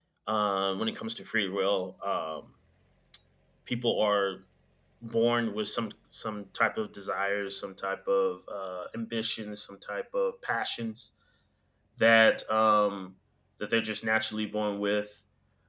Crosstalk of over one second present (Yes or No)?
No